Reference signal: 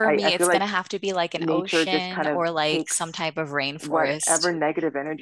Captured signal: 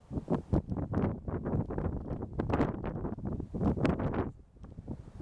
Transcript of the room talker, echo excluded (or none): none